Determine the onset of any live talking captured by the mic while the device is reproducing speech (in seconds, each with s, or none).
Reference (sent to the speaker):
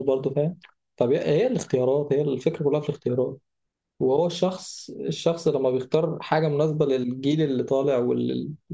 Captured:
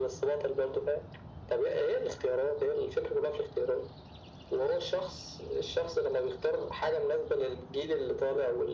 none